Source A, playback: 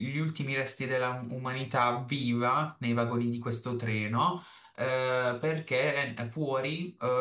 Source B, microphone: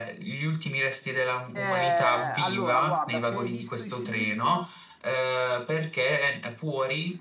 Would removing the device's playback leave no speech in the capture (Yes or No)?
No